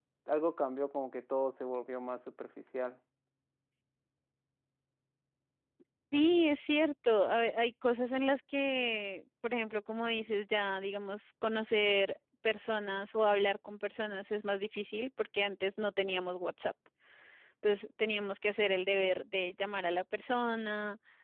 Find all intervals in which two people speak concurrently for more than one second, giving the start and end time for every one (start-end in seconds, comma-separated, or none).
none